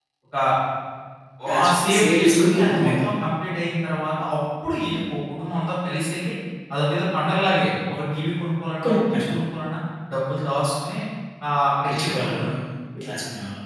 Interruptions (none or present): present